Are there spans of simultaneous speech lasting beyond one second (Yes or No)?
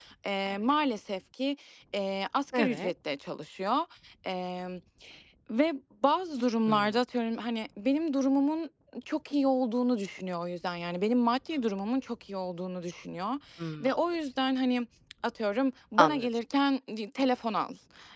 No